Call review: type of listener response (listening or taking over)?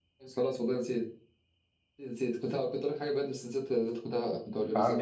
taking over